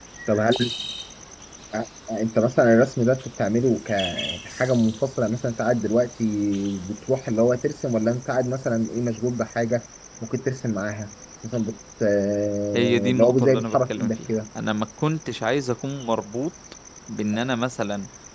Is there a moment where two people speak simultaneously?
Yes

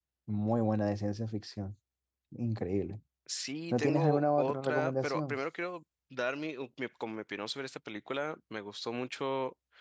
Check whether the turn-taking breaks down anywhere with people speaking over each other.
Yes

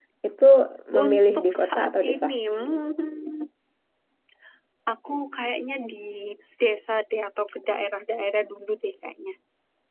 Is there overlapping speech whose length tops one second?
Yes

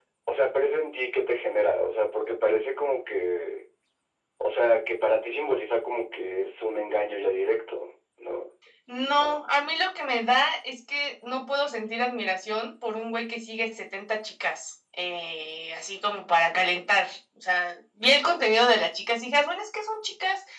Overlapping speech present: No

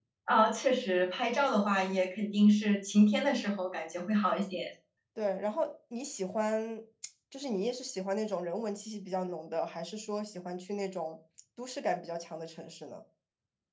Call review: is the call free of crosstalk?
Yes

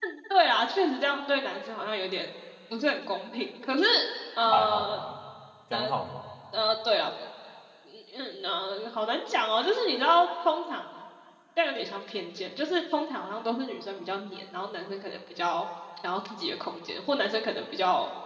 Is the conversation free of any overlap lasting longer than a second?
Yes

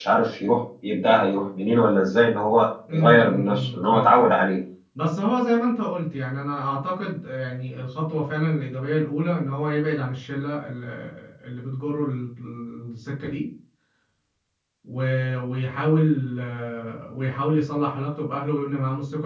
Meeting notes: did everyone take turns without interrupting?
No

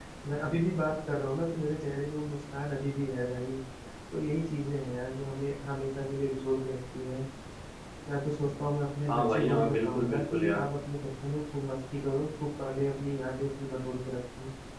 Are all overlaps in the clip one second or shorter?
No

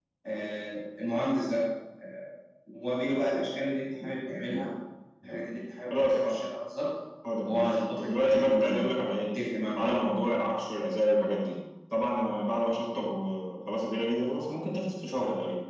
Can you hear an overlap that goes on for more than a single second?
Yes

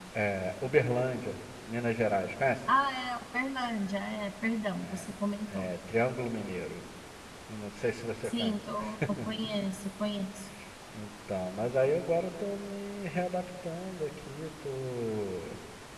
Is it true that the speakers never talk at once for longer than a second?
Yes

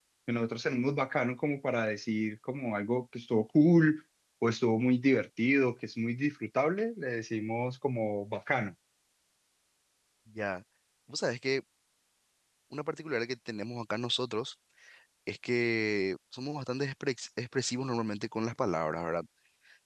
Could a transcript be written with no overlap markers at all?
Yes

